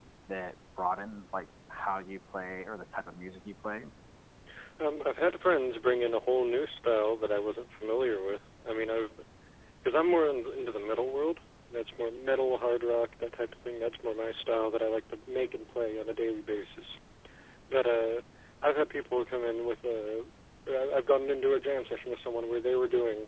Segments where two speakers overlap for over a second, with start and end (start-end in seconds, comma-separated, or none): none